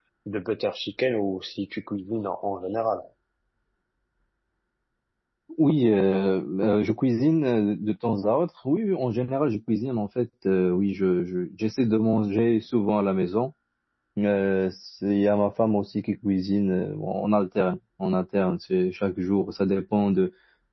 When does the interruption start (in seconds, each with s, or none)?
none